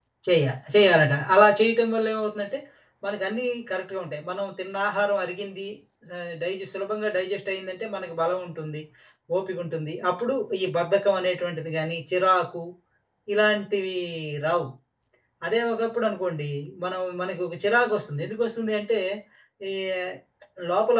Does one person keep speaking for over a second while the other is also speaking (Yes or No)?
No